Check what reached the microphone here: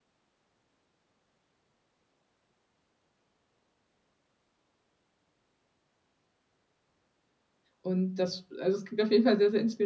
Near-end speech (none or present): present